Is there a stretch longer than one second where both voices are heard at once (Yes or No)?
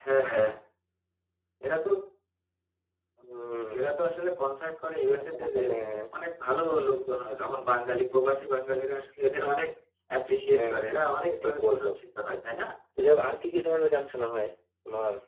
Yes